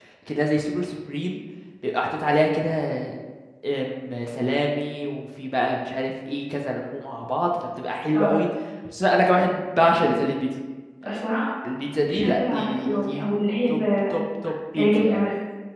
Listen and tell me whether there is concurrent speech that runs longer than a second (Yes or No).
Yes